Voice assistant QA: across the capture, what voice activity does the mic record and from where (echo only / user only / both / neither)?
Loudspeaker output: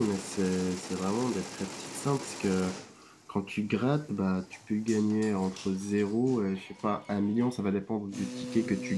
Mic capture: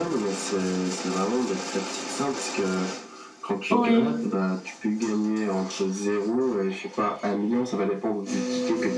both